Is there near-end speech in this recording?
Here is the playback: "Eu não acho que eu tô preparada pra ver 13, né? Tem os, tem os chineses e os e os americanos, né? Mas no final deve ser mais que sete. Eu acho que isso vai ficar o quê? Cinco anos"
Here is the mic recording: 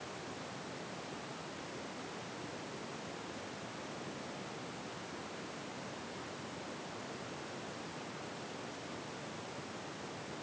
No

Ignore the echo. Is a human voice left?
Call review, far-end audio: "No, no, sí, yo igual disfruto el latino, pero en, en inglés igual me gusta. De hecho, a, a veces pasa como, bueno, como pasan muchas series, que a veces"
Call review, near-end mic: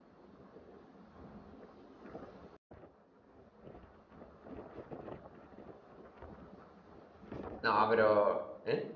Yes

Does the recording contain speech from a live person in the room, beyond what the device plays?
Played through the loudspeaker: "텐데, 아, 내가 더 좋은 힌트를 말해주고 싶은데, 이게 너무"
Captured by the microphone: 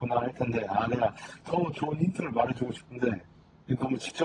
No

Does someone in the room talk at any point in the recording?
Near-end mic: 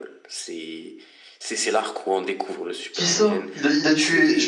Yes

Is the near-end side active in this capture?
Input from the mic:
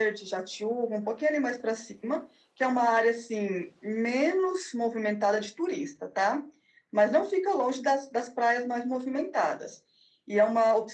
No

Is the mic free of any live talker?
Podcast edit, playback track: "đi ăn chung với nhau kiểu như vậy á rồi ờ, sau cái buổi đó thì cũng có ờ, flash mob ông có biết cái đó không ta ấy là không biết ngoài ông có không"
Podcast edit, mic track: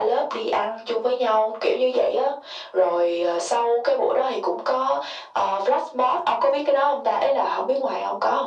Yes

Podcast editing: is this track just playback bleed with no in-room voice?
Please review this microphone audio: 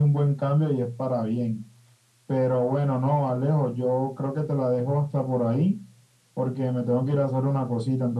Yes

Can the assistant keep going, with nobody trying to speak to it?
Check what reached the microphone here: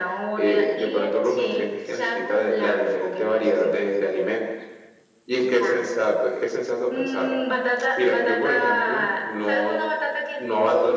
Yes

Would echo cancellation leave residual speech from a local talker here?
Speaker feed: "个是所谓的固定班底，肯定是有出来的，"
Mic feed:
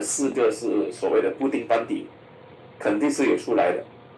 No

